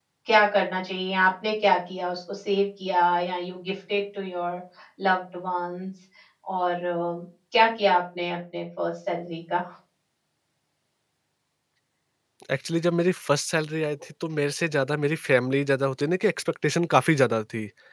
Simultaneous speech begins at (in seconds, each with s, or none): none